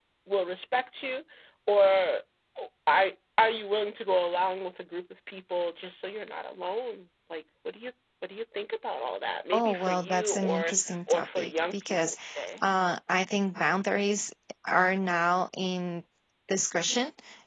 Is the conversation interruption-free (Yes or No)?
No